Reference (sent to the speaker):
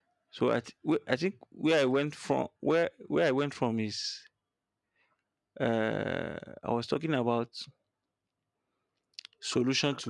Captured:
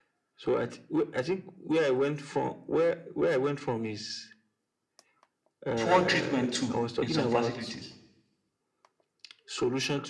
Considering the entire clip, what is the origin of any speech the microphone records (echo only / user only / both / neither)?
both